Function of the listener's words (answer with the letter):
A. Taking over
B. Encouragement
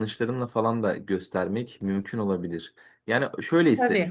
B